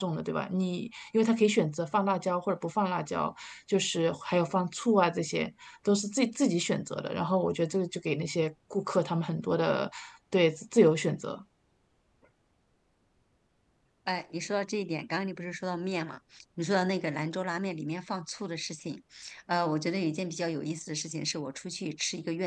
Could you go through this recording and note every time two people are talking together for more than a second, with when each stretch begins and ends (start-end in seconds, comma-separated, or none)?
none